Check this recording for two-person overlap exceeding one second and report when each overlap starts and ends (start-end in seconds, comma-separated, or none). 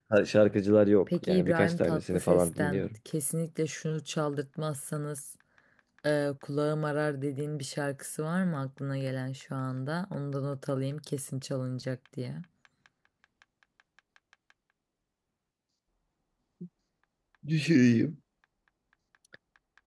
1.2-2.9